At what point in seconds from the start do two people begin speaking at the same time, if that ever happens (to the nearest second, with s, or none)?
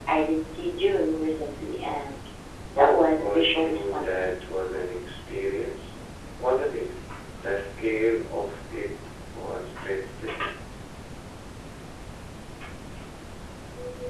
3 s